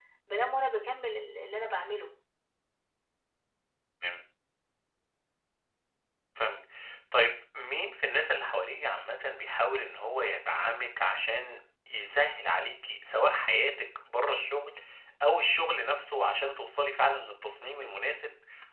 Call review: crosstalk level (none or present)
none